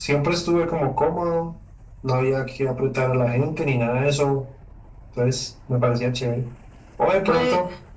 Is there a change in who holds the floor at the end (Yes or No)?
No